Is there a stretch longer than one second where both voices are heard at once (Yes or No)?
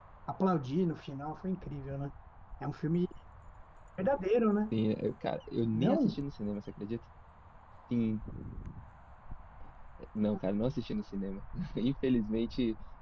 No